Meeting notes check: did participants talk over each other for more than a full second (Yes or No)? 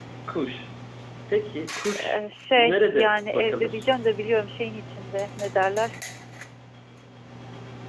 Yes